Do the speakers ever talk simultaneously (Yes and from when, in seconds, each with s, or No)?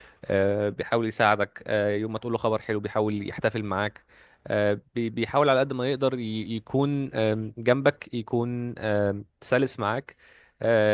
No